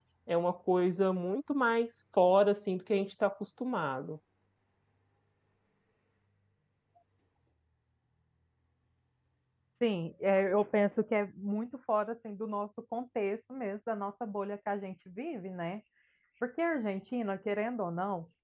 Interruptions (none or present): none